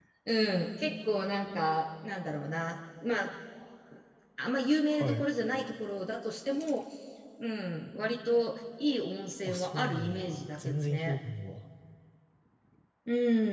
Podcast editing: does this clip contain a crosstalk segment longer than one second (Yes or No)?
Yes